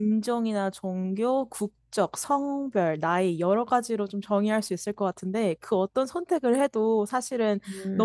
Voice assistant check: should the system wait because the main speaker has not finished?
Yes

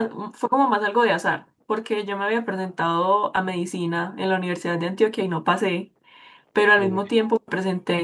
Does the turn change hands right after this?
No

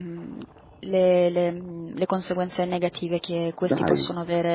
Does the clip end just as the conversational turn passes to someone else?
No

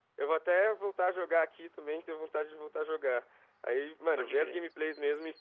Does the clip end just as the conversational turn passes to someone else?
No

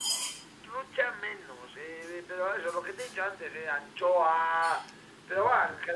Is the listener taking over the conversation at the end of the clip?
No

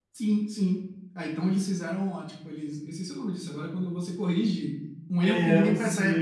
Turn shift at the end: Yes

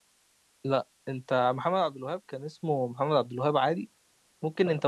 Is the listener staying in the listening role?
Yes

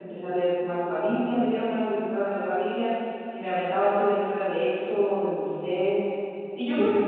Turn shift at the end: No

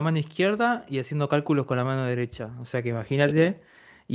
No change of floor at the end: Yes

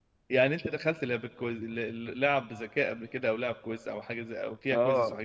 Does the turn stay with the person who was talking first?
No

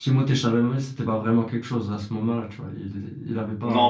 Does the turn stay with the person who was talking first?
No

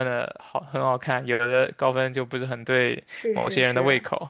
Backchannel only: No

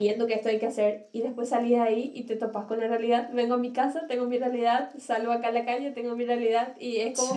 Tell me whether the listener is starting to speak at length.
No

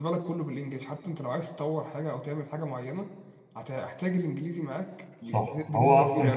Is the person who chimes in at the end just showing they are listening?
No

